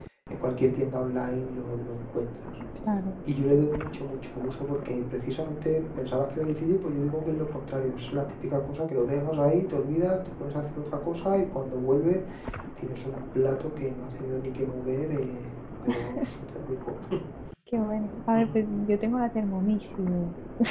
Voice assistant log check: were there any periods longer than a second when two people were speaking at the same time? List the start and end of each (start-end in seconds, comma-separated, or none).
none